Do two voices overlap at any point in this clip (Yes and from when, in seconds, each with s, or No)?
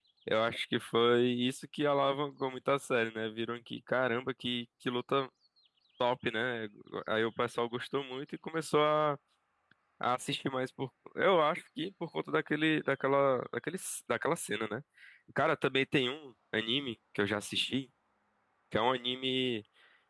No